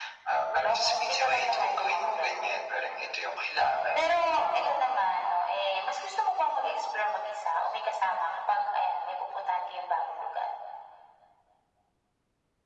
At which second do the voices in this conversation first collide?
0.5 s

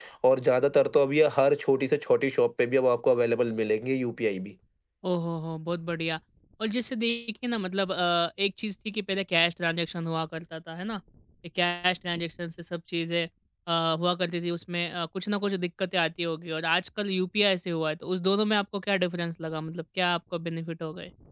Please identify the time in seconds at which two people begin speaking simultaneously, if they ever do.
none

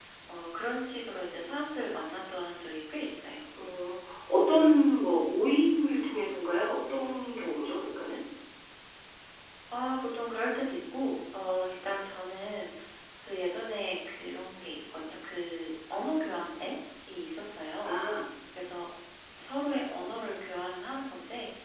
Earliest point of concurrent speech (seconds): none

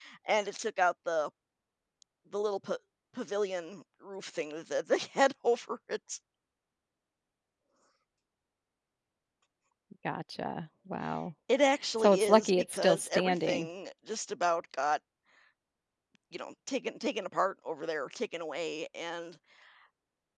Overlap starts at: 12.0 s

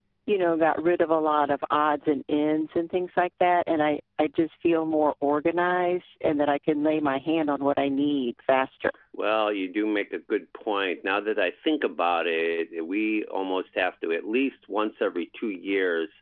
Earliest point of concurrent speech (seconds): none

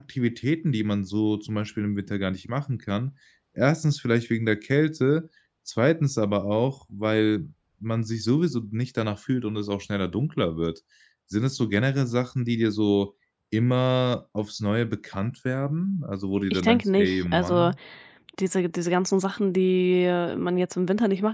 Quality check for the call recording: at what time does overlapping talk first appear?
16.5 s

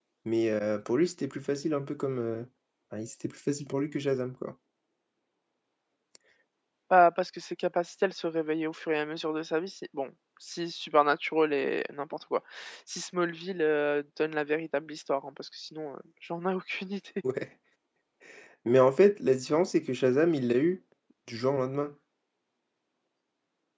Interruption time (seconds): none

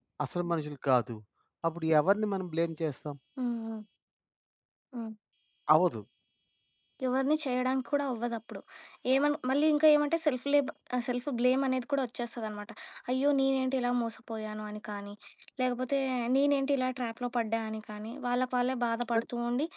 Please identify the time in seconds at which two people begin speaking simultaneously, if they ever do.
none

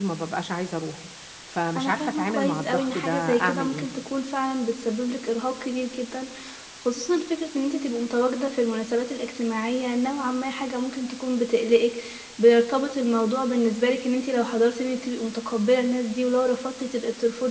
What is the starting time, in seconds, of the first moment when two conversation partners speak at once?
1.8 s

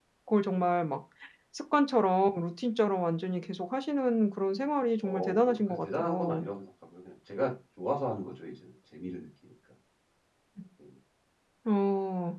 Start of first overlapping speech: 5.0 s

